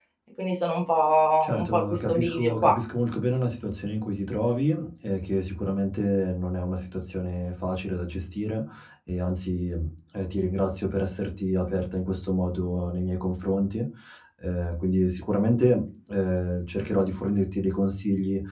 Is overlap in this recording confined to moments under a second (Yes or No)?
No